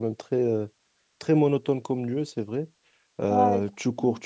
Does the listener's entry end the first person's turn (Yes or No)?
No